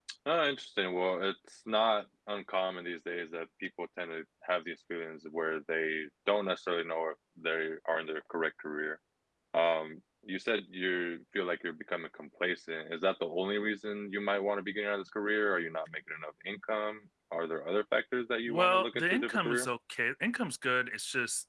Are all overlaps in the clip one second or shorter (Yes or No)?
No